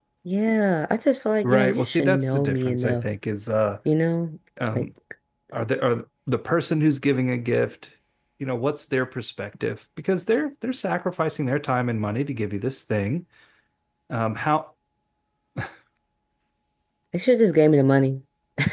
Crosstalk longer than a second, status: present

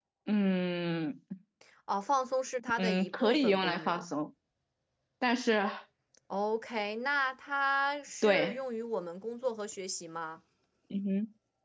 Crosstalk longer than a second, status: present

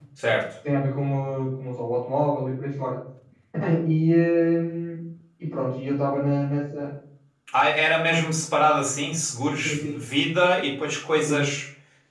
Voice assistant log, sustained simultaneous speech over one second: none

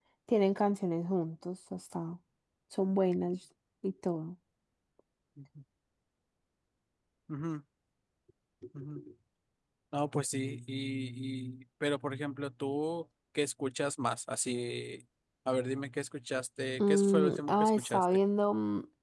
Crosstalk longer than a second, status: present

